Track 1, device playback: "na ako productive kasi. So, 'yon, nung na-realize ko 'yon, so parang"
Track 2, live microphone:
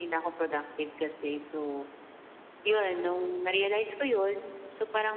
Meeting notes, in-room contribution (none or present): none